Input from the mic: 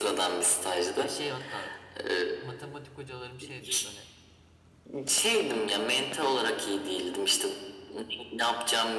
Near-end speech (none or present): present